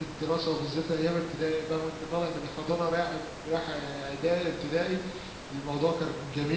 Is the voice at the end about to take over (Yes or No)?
No